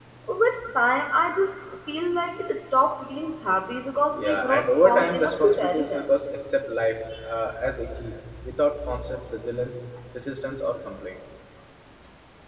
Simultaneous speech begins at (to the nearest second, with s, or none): 4 s